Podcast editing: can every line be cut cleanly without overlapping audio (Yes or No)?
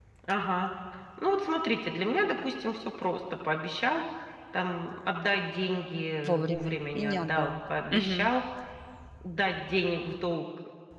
No